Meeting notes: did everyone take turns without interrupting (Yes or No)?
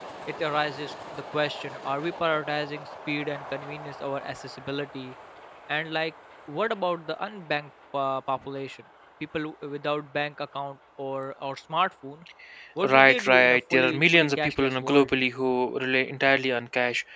No